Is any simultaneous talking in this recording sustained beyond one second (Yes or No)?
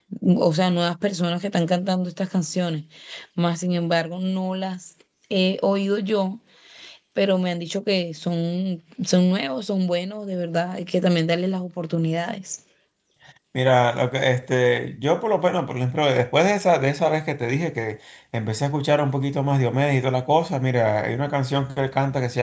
No